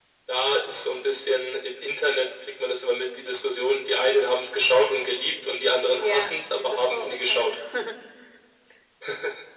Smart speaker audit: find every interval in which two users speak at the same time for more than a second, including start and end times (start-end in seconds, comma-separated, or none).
6.0-7.5